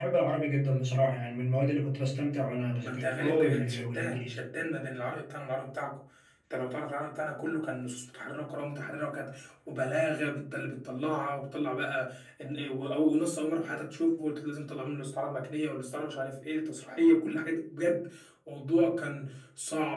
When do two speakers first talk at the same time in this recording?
2.8 s

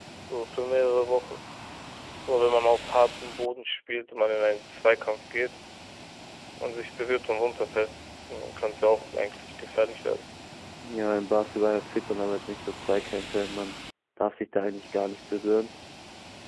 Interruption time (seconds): none

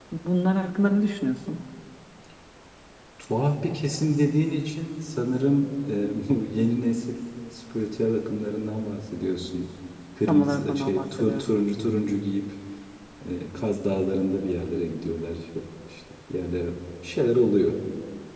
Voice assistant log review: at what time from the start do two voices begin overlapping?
10.3 s

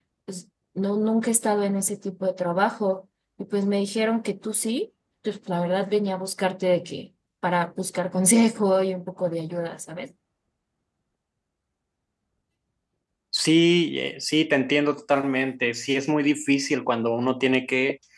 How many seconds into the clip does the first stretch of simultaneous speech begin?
none

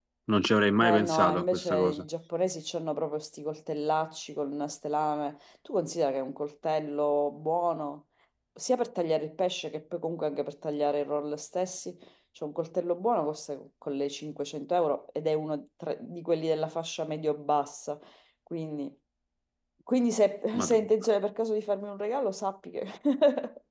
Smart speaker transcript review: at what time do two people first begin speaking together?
0.8 s

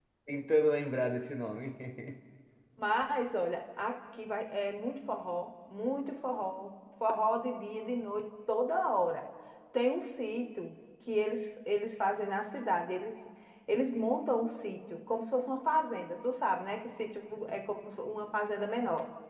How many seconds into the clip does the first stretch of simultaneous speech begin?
none

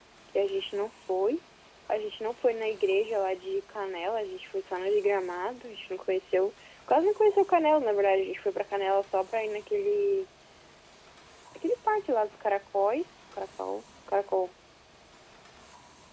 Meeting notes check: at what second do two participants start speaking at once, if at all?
none

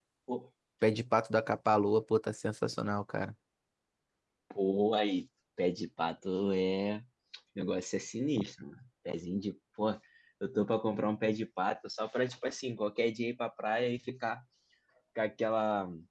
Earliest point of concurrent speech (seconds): none

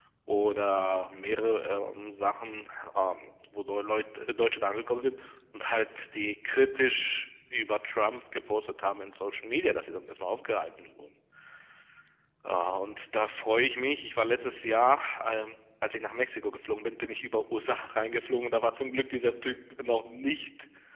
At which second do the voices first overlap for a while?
none

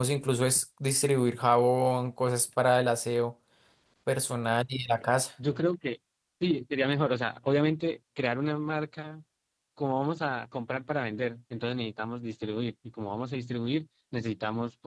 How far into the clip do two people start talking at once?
none

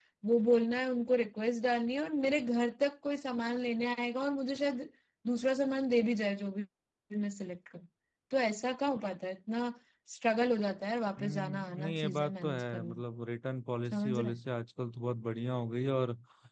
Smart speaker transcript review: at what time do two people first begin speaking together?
11.2 s

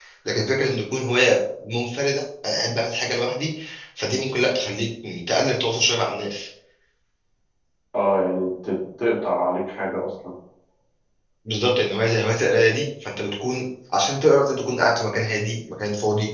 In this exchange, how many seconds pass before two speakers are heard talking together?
none

